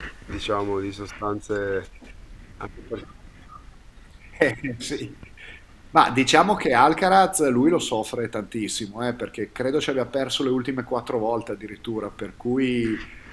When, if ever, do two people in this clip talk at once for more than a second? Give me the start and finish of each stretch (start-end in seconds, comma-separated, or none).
none